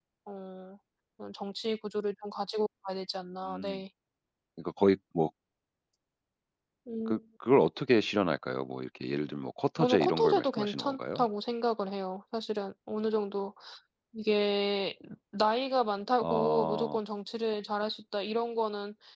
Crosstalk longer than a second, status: present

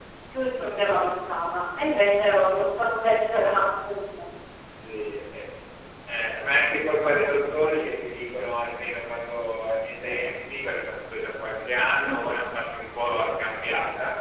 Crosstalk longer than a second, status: none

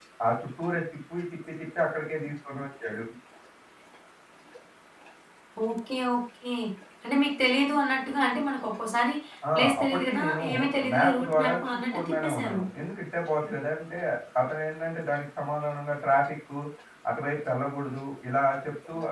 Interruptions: present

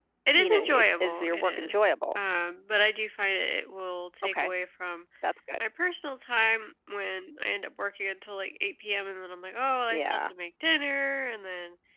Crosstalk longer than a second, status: present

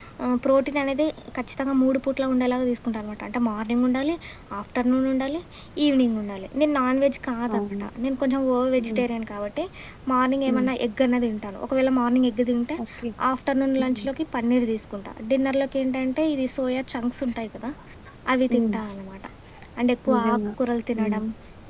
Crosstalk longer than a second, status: none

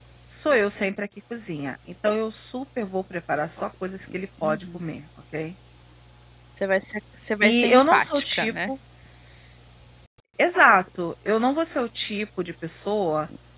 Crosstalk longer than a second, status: present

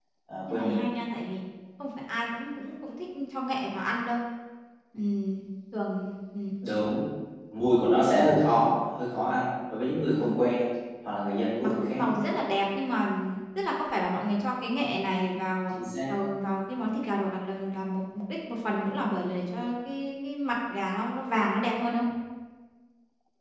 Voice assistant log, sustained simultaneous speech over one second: none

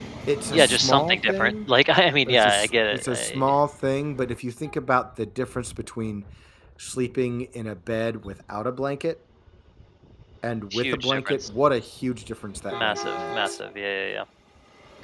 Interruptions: present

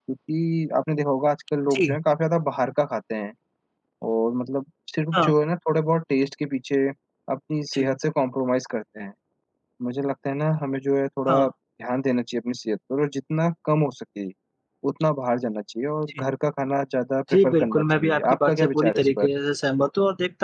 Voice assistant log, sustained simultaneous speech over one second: present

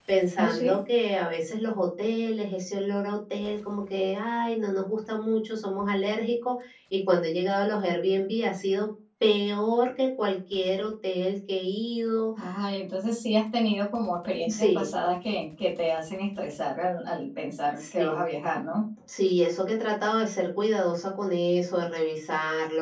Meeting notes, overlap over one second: none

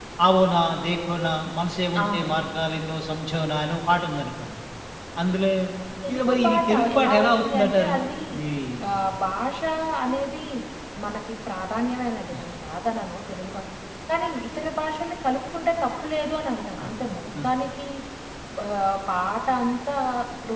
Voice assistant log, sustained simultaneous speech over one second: present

